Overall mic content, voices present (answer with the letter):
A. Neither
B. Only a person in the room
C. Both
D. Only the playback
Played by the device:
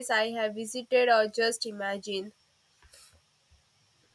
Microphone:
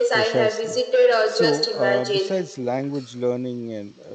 C